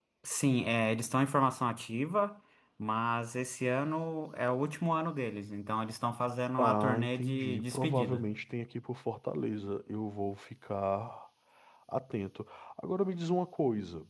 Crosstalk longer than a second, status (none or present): present